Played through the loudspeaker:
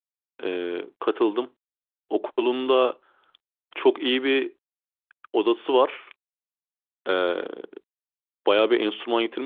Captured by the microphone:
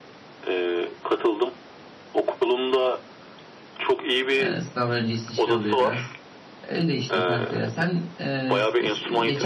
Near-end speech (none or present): present